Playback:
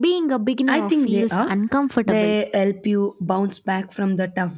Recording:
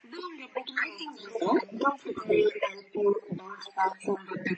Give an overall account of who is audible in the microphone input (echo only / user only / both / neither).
echo only